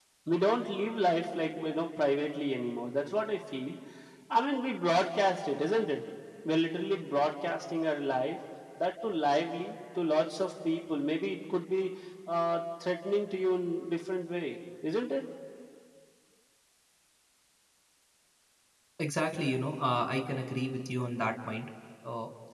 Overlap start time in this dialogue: none

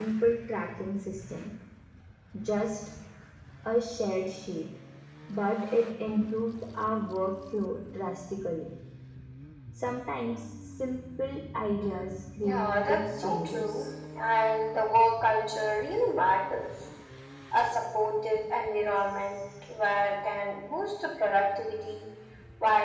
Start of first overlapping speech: 12 s

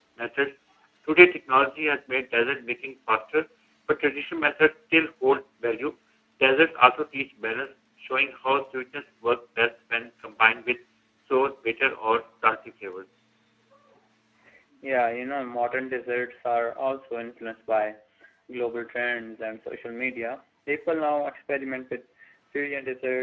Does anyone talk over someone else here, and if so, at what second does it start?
none

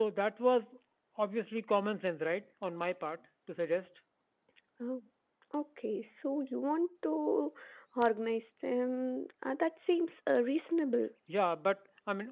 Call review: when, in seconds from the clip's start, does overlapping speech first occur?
none

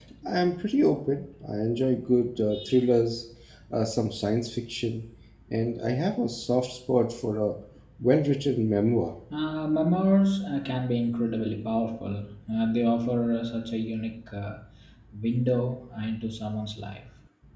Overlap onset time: none

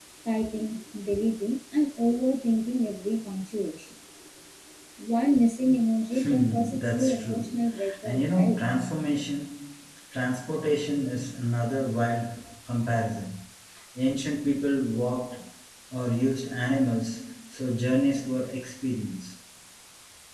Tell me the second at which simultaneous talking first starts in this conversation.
6 s

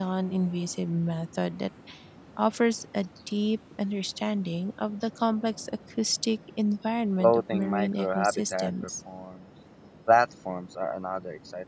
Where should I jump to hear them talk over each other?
7 s

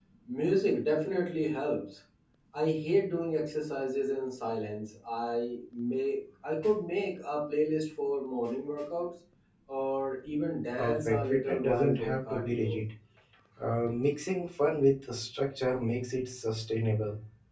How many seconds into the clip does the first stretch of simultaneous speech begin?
11 s

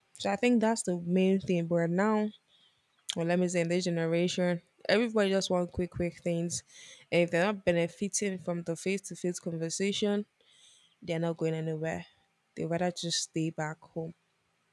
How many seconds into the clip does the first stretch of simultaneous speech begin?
none

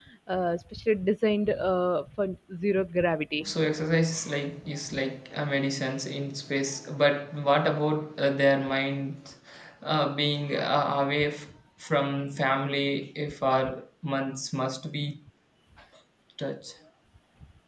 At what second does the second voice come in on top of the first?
none

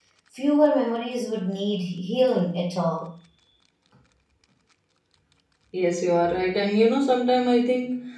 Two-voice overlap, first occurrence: none

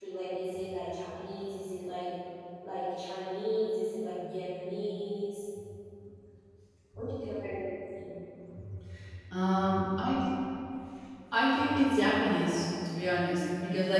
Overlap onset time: none

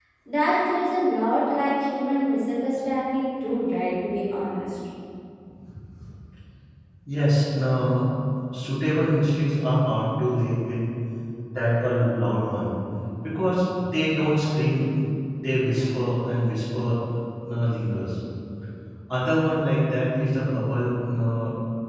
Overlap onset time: none

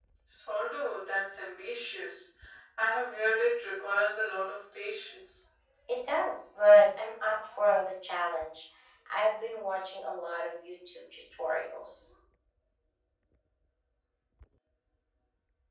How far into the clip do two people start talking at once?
none

